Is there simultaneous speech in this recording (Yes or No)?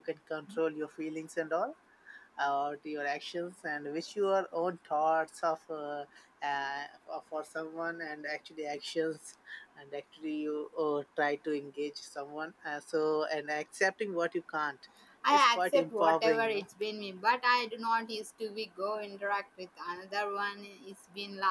Yes